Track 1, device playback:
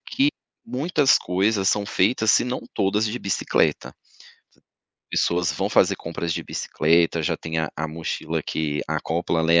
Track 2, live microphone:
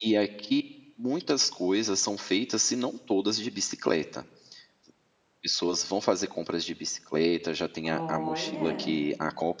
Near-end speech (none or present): present